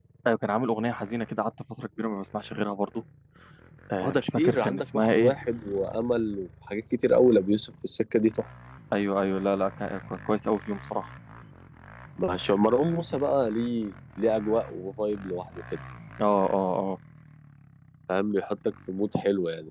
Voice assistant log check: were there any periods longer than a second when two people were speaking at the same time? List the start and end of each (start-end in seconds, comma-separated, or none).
4.0-5.3